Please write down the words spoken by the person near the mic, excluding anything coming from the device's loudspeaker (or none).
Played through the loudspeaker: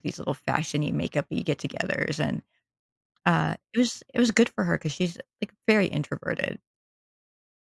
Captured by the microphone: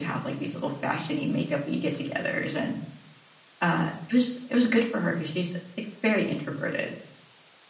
none